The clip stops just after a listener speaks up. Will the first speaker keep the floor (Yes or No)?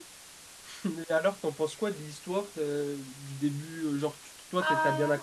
Yes